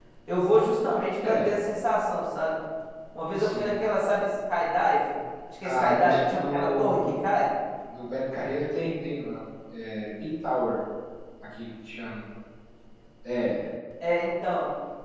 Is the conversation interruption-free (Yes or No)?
No